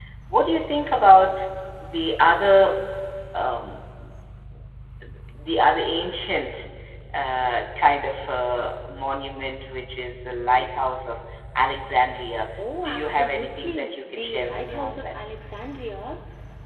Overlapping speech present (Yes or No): Yes